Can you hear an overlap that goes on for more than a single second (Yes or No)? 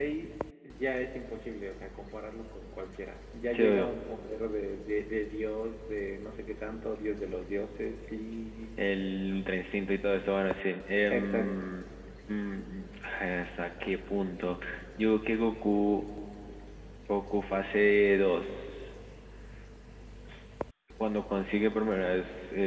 No